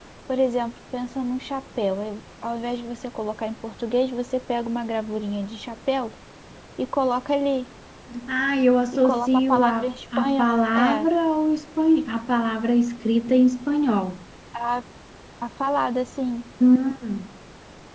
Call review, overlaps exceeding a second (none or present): present